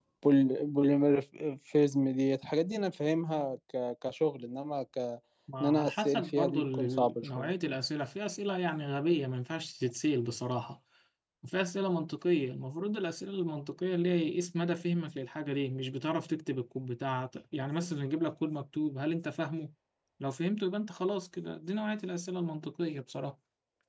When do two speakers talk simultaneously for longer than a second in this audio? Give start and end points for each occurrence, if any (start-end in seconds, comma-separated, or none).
5.6-7.5